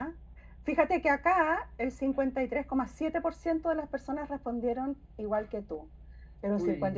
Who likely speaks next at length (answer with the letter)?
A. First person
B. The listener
A